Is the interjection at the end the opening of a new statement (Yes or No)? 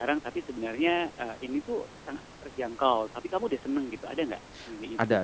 Yes